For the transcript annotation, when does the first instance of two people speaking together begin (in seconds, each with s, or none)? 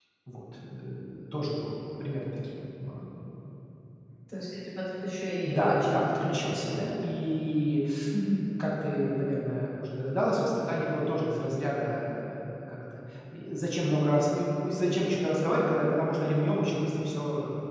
5.5 s